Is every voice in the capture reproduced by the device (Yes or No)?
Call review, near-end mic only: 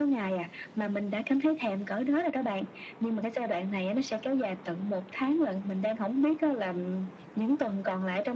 Yes